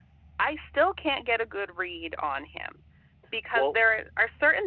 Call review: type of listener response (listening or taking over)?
listening